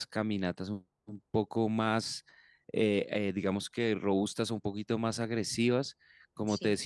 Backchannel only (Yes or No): Yes